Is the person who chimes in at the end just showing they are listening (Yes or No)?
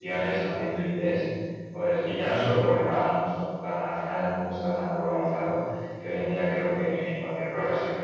Yes